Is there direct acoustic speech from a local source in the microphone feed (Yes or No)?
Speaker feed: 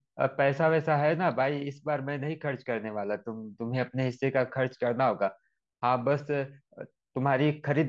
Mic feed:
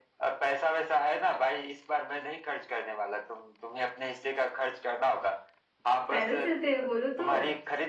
Yes